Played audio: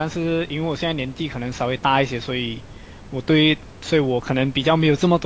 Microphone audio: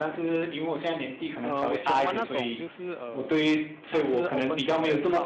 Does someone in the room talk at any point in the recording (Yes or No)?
Yes